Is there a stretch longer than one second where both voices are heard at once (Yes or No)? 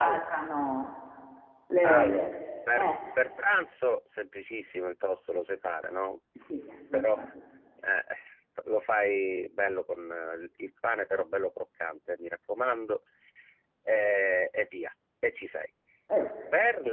No